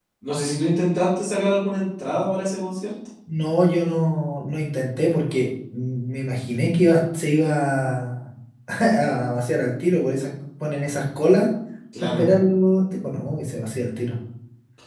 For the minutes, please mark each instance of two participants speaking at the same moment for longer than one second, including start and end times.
none

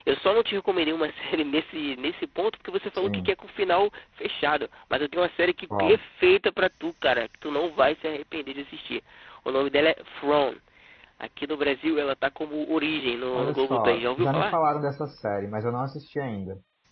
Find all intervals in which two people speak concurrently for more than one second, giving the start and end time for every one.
13.3-14.6

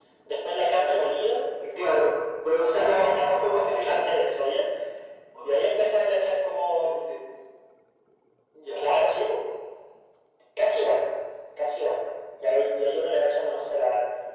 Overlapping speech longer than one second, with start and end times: 2.6-4.1

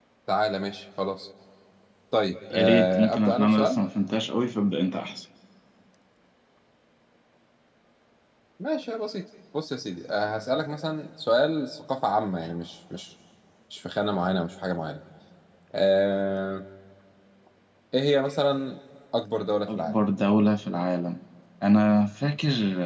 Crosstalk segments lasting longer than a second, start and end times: 2.5-3.8

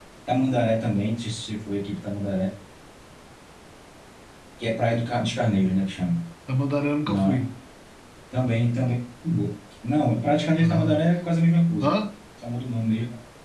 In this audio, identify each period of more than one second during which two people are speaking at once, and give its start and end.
none

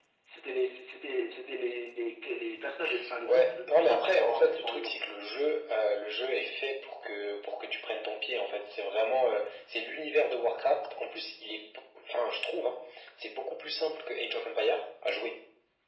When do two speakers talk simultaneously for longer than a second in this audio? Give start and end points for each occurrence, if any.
3.2-4.9

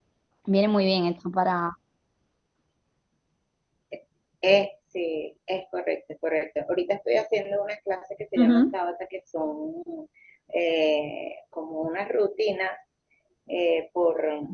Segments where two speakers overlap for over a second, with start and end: none

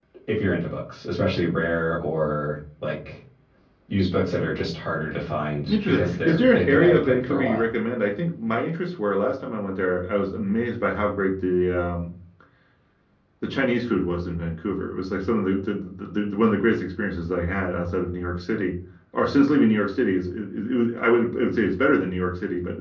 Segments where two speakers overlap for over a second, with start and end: 5.7-7.6

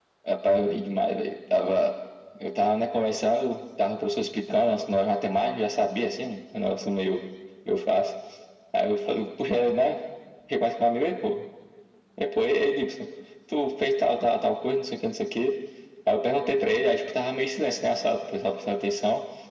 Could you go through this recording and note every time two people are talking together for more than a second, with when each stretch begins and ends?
none

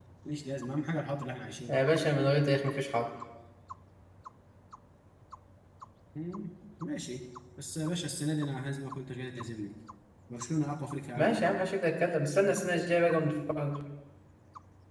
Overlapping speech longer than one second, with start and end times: none

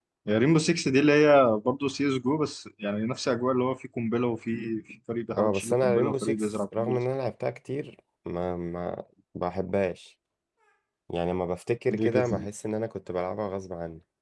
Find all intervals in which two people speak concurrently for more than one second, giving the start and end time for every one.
5.4-7.0

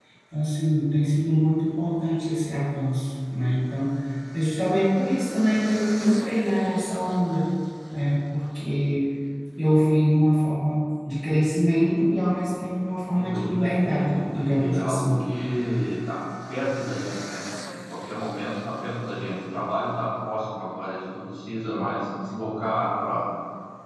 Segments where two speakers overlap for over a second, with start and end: 13.2-15.2

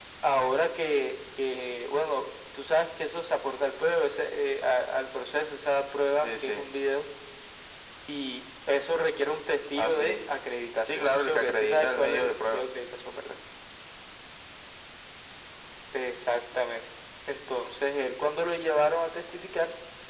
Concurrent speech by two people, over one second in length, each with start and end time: 10.8-12.7

